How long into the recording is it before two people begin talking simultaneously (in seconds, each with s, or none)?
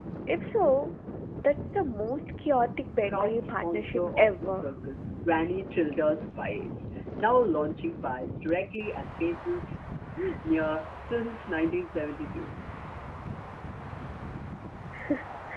3.1 s